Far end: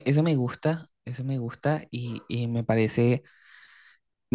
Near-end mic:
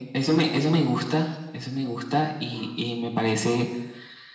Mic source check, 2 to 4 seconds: echo only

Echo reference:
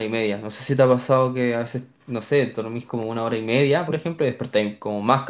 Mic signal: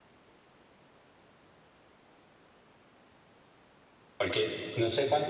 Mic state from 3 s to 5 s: user only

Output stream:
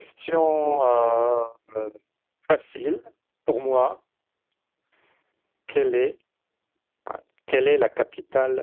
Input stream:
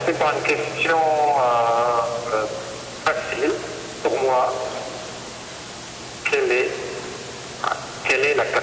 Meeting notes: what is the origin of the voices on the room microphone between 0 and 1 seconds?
echo only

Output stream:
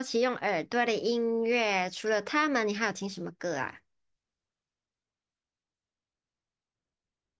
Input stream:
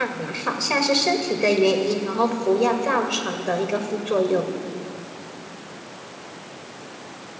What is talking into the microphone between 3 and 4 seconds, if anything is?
user only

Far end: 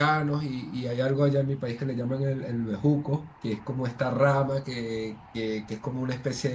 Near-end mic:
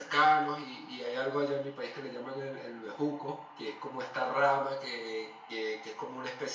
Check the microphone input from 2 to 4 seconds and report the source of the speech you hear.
echo only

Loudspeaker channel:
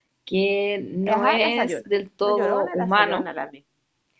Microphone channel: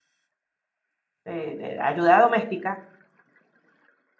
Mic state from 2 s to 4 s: user only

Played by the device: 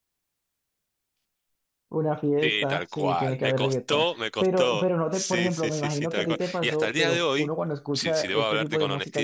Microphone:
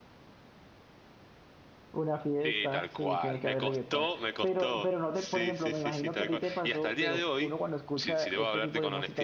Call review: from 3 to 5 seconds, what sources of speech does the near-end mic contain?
echo only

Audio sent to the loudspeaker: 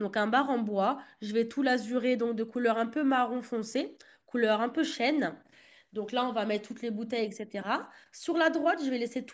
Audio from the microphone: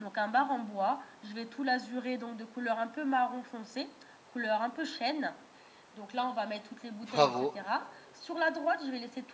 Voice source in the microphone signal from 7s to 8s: both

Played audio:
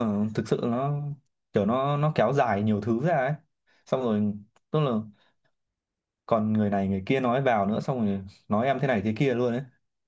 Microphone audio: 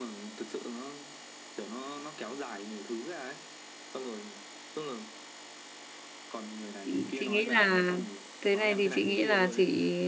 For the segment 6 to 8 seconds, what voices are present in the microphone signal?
both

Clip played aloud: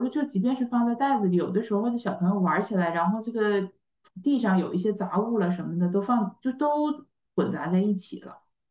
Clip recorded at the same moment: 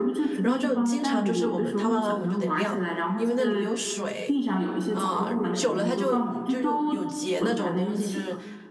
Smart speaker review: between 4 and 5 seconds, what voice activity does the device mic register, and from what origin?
both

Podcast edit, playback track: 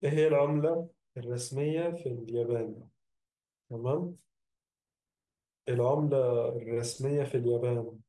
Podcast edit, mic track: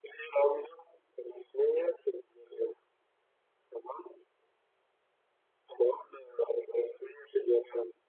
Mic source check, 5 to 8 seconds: echo only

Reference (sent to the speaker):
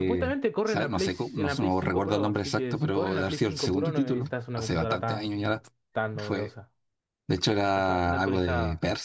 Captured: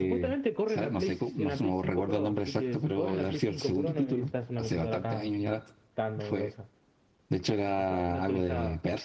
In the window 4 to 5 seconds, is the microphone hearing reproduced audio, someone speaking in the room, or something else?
echo only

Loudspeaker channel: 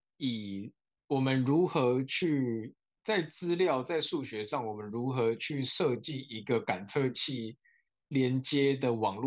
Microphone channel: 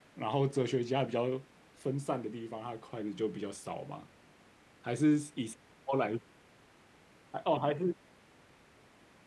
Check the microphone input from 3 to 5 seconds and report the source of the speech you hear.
user only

